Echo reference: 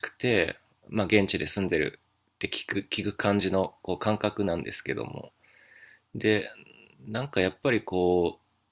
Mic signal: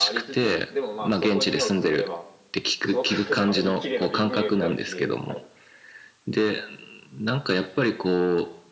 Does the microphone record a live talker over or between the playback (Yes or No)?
Yes